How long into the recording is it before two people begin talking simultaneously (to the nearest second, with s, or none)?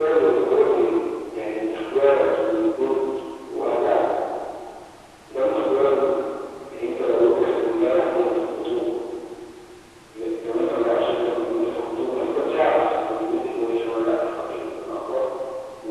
none